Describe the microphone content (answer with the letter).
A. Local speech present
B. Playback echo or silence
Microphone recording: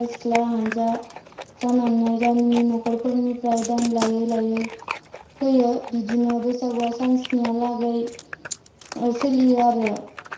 B